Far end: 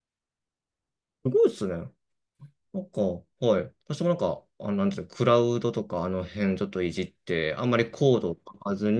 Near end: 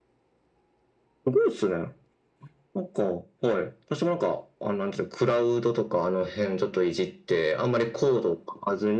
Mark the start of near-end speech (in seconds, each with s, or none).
none